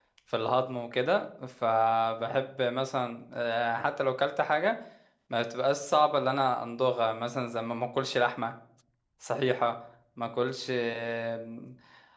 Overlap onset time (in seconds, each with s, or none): none